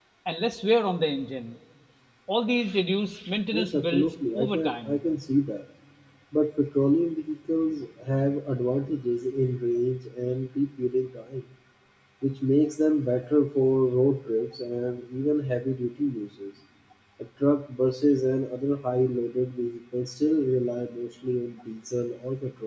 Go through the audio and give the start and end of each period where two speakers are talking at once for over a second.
3.5-5.0

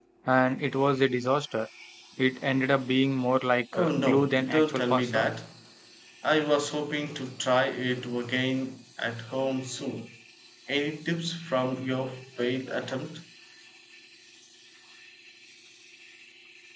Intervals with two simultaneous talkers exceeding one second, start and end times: 3.7-5.3

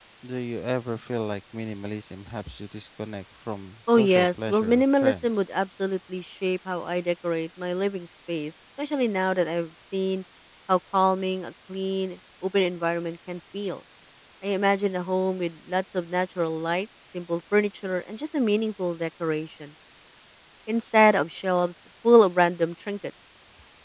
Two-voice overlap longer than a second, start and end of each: 3.9-5.4

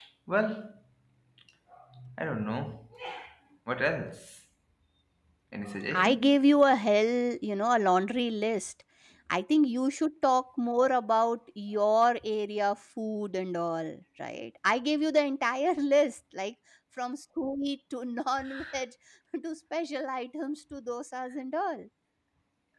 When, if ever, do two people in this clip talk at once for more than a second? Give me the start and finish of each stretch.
none

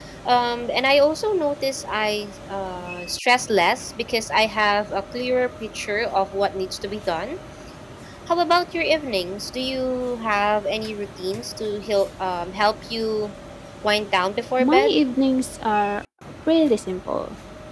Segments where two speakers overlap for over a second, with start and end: none

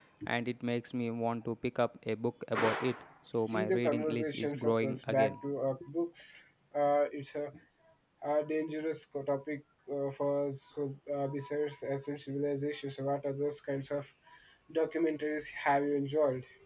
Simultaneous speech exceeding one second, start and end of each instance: 3.5-5.4

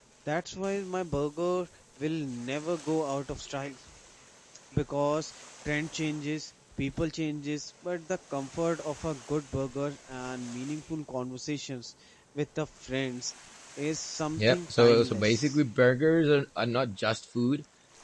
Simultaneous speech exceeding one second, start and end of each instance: 14.3-15.6

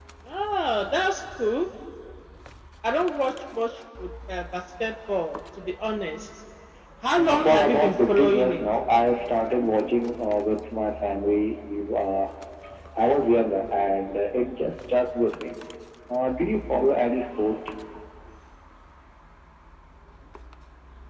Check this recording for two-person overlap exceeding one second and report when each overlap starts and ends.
7.2-8.6

